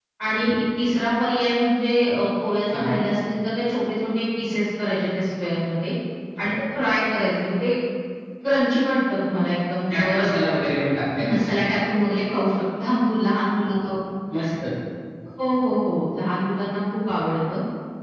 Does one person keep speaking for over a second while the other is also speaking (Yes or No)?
No